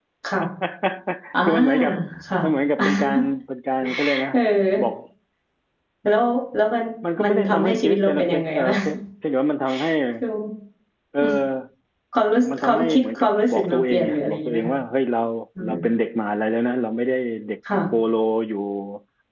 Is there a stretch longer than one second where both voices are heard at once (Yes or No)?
Yes